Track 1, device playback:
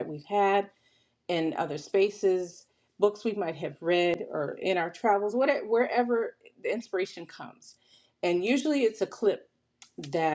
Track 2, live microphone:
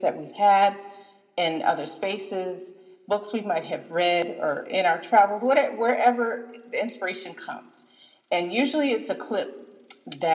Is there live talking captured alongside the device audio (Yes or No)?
No